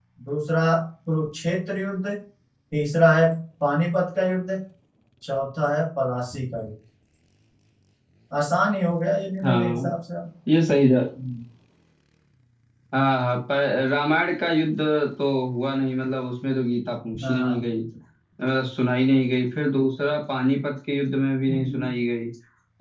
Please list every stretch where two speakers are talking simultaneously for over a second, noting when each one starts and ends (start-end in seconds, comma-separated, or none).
none